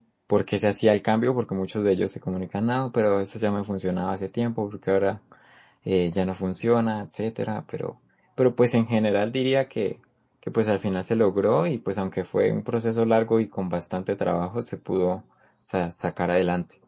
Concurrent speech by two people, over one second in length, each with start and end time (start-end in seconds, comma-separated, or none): none